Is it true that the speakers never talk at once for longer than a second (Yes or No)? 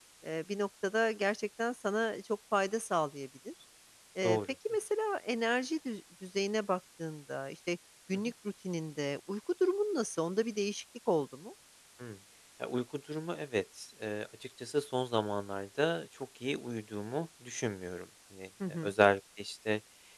Yes